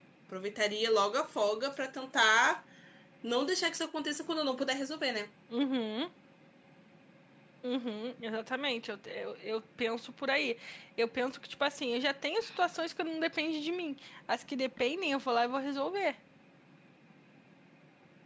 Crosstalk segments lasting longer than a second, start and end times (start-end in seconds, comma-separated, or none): none